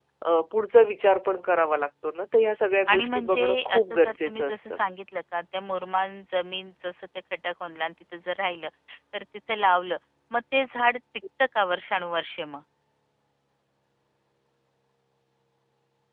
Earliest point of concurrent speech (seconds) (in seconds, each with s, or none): 2.9 s